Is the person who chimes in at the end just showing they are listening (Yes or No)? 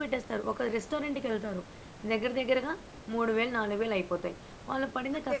Yes